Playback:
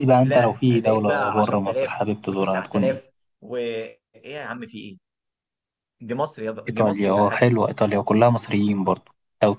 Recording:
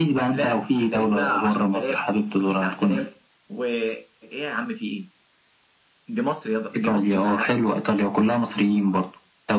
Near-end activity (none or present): none